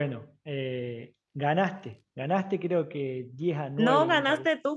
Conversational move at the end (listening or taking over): taking over